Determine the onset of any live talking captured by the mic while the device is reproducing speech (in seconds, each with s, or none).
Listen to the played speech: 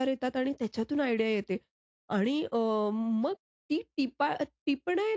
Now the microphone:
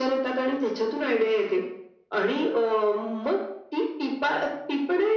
none